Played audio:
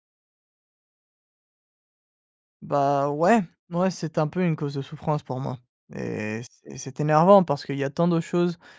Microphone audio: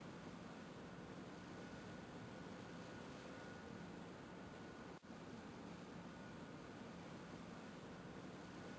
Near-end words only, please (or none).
none